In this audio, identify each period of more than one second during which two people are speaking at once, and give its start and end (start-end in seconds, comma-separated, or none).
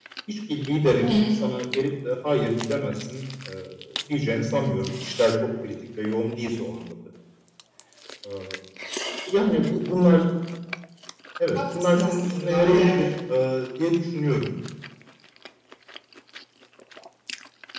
11.5-13.0